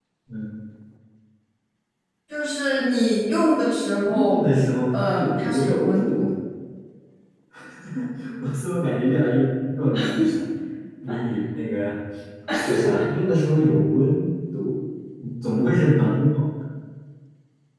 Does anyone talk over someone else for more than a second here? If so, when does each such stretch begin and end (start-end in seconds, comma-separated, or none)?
4.9-6.3